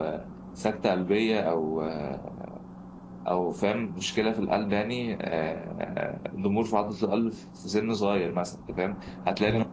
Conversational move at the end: listening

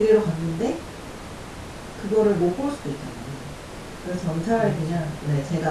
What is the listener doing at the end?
listening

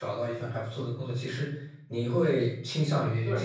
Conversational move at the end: listening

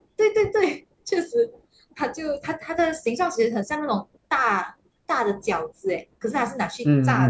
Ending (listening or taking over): taking over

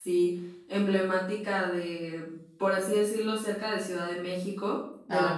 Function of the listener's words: listening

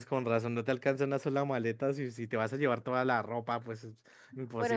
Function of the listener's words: taking over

